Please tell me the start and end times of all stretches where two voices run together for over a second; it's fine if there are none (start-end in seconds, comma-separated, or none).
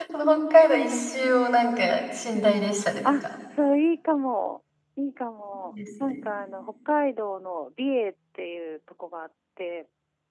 none